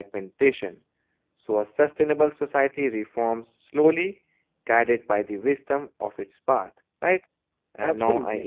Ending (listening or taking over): listening